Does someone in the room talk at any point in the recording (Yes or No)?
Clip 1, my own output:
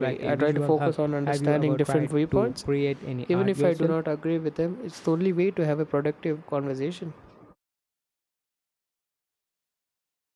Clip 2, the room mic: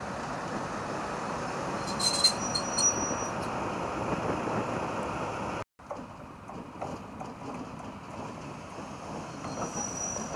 No